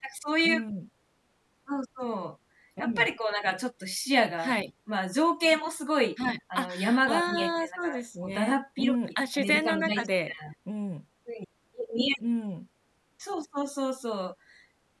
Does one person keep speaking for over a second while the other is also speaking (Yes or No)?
Yes